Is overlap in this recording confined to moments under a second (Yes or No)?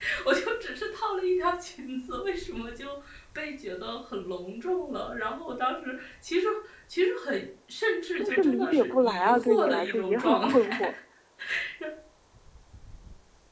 No